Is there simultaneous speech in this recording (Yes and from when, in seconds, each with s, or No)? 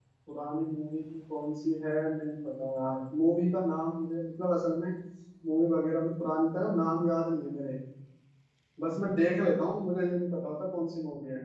No